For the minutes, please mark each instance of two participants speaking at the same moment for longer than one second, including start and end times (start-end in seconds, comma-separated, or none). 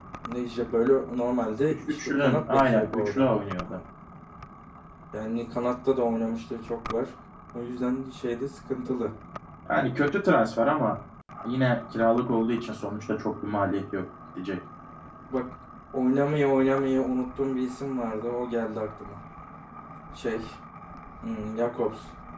1.7-3.3